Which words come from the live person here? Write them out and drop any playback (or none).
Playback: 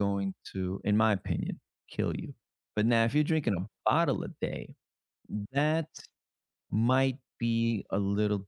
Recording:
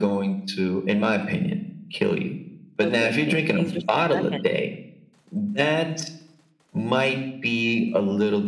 Oh, good, good. Ease yourself back in.